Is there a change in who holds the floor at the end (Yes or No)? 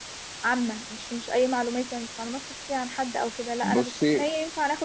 No